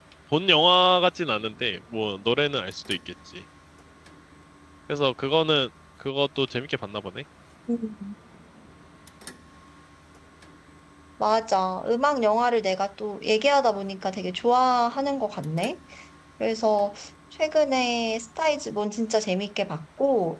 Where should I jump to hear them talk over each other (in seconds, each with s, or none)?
none